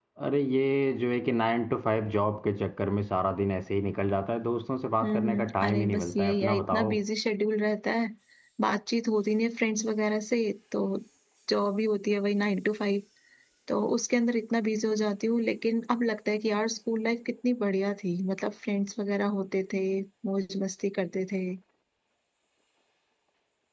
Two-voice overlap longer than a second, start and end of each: 5.0-6.9

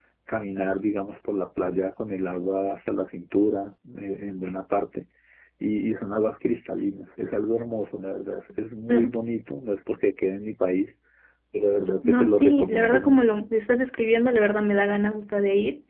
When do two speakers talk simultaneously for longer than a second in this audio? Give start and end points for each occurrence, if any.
12.0-13.3

